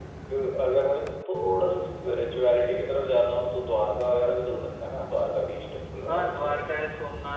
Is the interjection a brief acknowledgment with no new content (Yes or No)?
No